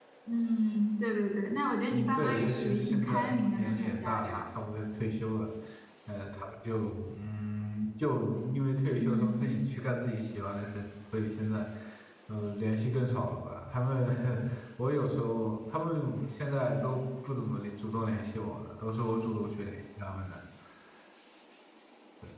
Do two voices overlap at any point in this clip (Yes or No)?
Yes